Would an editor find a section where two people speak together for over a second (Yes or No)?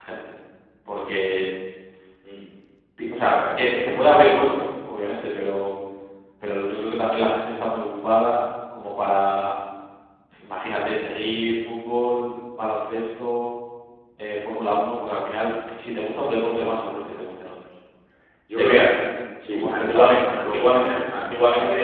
Yes